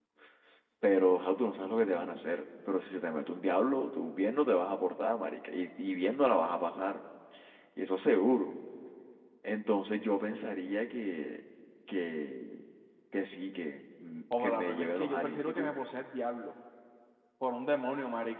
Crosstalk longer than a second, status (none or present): present